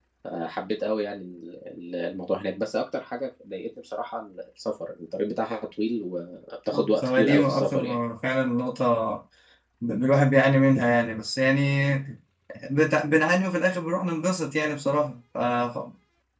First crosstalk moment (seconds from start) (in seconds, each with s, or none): 6.7 s